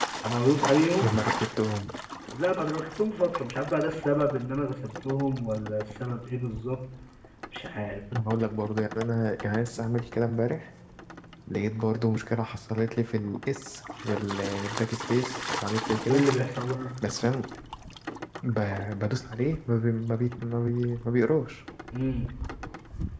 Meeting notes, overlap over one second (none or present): none